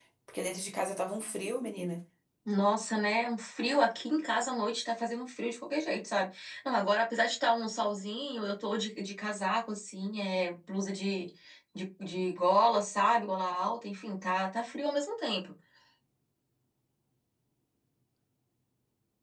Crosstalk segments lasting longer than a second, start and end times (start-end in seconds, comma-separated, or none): none